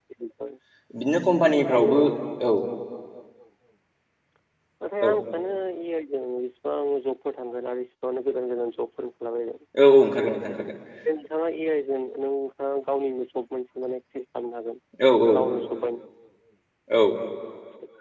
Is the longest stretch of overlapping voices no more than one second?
Yes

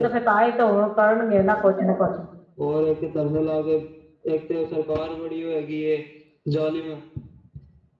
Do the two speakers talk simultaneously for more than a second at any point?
No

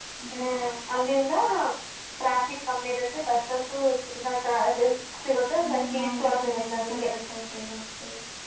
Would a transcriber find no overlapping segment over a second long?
No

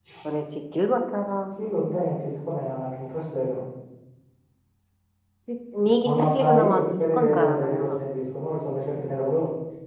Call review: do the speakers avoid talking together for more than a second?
No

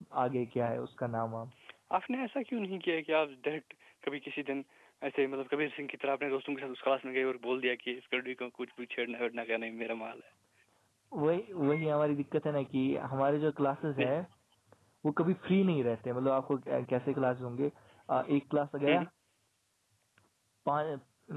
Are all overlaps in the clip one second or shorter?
Yes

